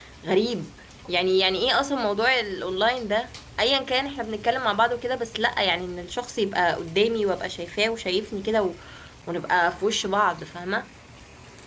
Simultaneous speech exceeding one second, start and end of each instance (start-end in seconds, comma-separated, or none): none